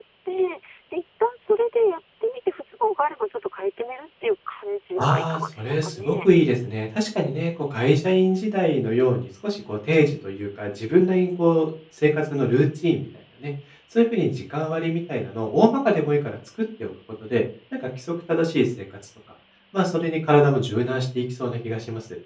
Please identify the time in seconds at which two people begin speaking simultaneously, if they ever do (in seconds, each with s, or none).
5.0 s